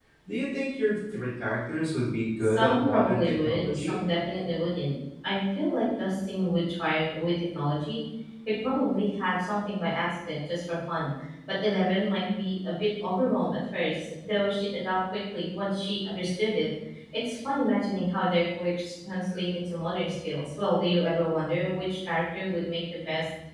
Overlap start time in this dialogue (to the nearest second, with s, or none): 2 s